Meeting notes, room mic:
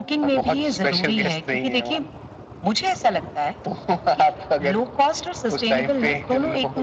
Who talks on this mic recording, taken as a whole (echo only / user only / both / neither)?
echo only